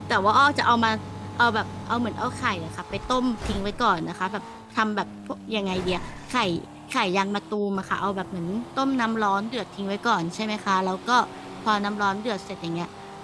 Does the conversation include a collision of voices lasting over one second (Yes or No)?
No